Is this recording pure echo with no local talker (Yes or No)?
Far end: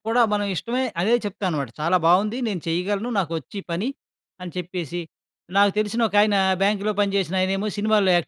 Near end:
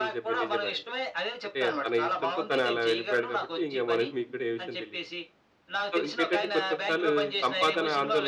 No